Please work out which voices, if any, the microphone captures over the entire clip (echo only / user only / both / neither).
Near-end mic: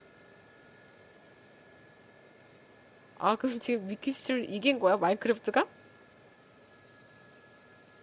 user only